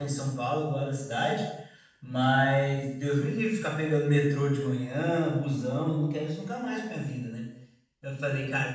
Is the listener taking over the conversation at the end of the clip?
No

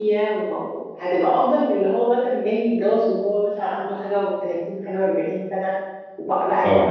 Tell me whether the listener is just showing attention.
Yes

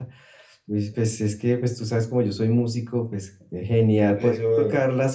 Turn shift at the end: No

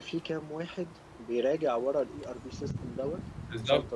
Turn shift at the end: Yes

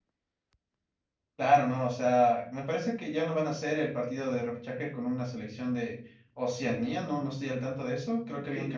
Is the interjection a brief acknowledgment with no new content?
Yes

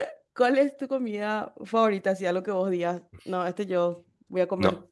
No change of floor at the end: No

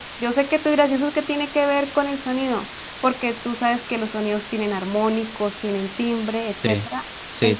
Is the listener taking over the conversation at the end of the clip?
Yes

